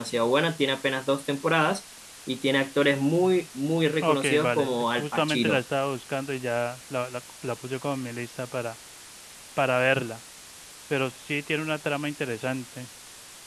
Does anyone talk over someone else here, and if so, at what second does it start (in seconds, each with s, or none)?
4.0 s